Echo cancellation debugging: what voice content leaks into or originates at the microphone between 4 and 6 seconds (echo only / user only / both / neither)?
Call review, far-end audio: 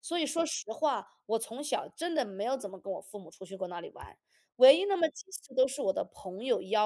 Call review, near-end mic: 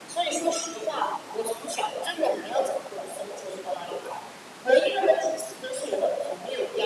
echo only